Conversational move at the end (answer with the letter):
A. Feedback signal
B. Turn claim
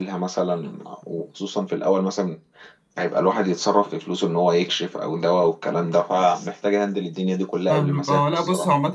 B